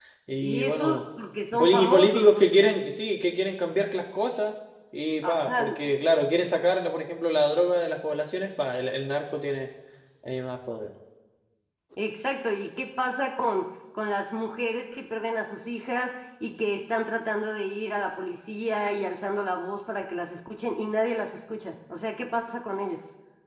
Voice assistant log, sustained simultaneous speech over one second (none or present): present